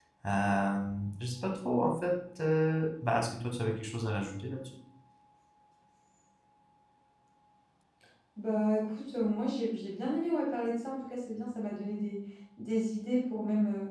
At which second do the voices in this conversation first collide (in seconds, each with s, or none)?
none